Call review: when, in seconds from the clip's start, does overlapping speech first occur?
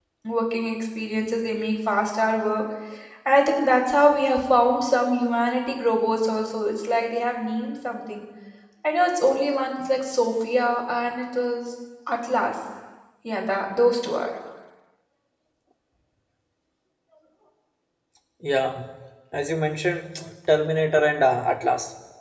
none

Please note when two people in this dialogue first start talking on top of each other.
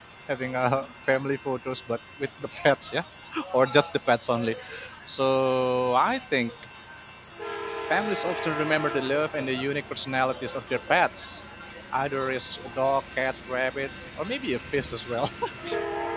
none

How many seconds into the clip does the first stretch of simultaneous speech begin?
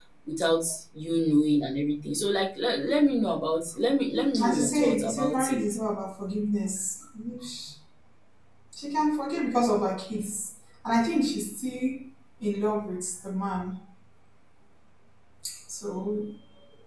4 s

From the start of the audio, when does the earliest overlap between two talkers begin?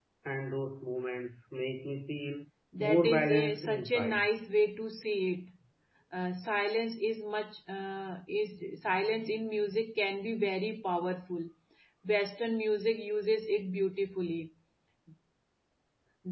3 s

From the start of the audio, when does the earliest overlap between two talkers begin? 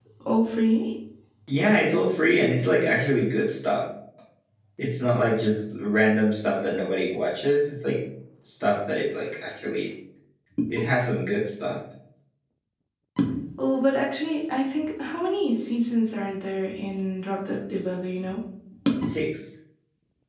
none

